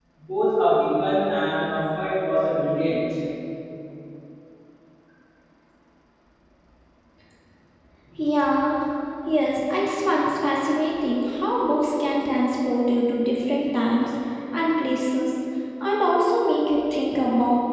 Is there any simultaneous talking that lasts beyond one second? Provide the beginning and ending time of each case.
none

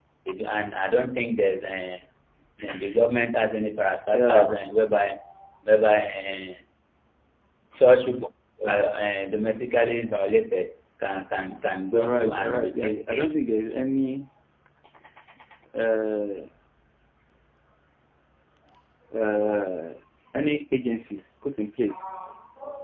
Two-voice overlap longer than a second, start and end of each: 11.9-13.3

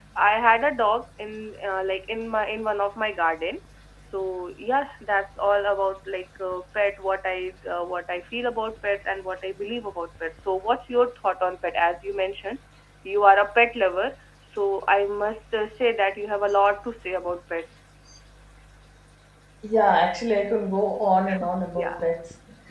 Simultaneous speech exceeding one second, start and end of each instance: none

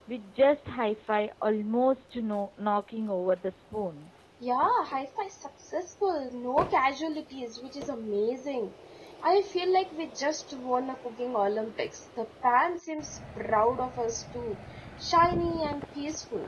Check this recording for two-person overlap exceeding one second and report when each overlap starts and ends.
none

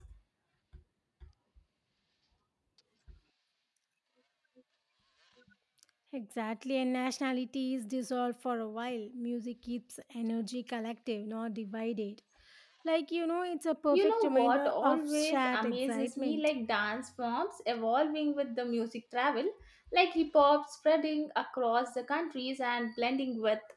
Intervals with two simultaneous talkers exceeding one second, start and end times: 13.9-16.4

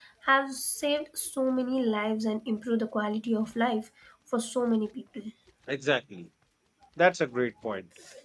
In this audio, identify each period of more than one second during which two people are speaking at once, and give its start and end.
none

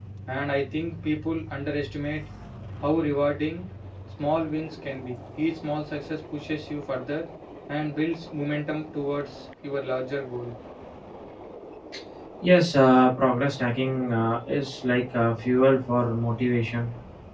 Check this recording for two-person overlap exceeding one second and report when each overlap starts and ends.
none

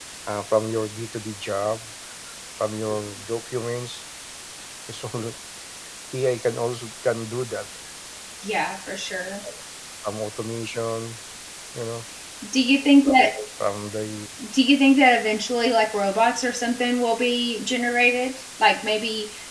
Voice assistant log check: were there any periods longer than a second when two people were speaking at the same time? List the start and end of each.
none

